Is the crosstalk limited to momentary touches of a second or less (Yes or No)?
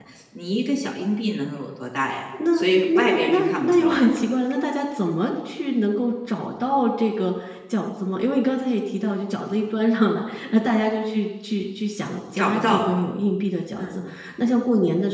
No